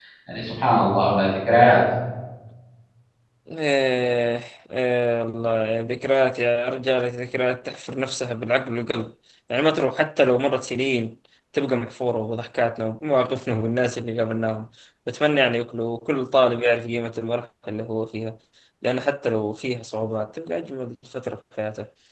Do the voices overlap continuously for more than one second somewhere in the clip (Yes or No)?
No